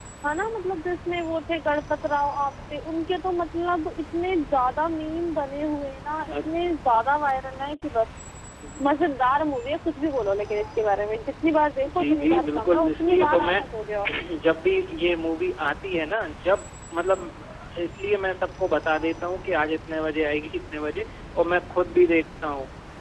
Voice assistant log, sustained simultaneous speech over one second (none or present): present